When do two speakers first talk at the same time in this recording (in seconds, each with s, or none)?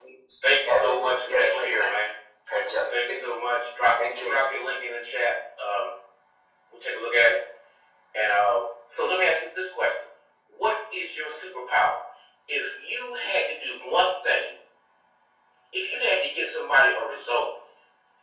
0.7 s